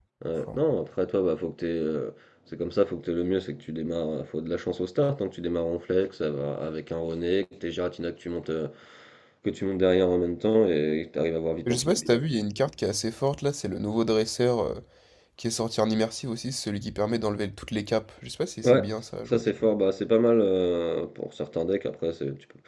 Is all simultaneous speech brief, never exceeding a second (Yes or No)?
Yes